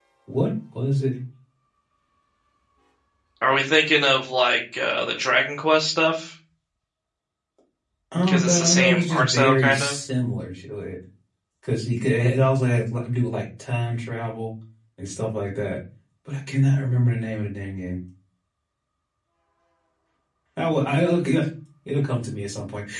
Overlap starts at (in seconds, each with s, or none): 8.3 s